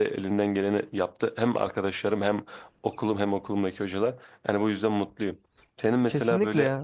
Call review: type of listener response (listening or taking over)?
listening